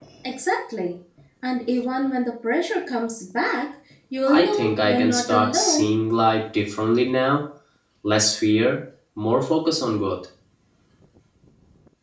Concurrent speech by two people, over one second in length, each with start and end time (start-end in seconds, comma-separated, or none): 4.3-6.0